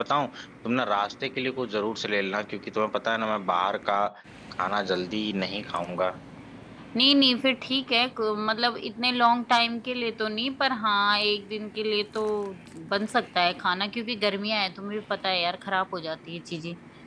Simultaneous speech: No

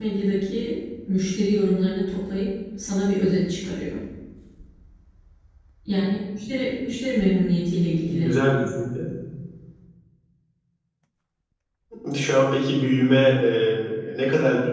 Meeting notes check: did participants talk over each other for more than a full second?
No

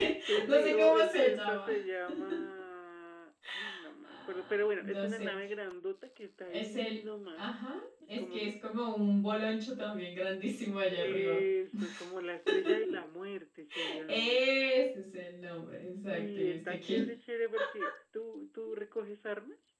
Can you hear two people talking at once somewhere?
Yes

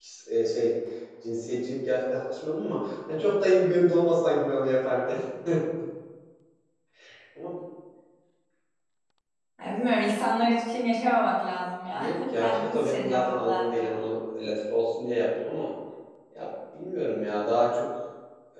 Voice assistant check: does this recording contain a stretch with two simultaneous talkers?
Yes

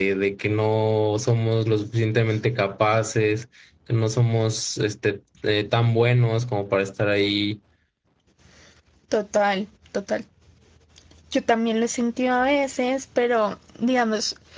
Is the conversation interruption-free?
Yes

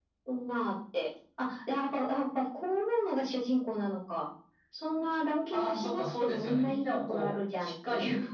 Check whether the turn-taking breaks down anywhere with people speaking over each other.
Yes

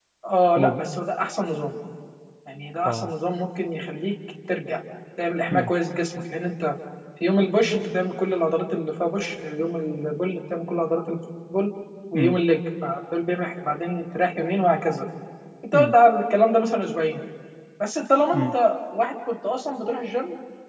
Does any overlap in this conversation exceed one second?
No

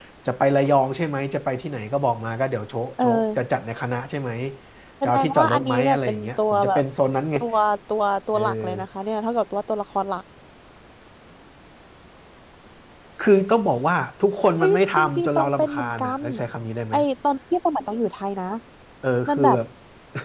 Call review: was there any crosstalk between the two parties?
Yes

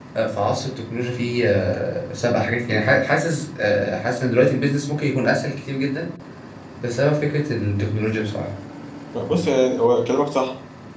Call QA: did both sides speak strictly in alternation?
Yes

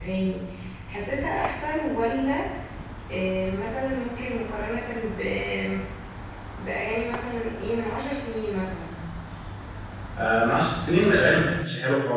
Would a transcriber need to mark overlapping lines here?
No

